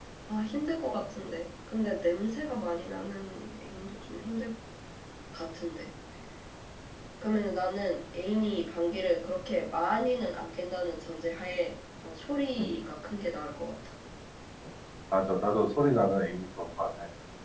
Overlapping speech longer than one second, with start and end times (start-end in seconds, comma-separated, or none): none